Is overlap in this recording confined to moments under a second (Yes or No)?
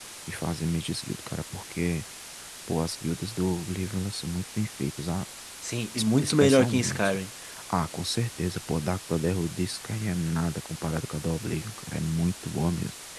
No